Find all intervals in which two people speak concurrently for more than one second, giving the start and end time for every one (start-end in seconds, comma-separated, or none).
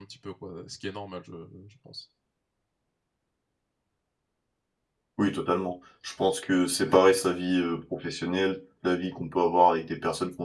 none